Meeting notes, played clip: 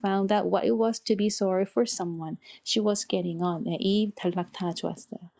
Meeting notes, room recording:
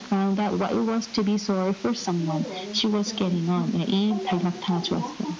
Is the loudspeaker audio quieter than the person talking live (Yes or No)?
No